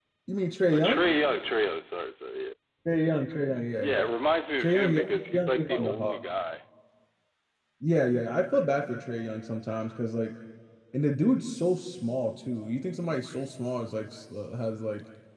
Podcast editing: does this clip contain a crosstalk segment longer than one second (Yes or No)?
Yes